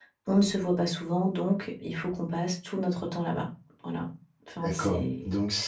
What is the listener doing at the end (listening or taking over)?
taking over